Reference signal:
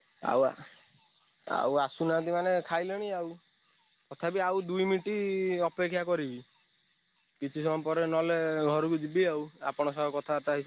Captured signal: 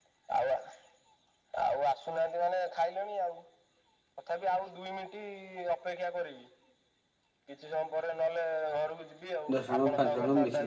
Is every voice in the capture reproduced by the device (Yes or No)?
No